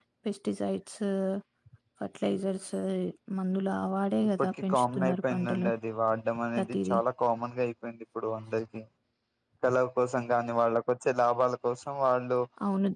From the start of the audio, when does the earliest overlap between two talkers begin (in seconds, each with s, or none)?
4.4 s